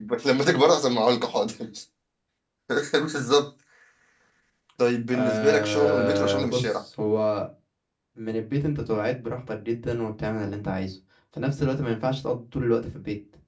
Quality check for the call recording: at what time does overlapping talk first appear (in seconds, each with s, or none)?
5.1 s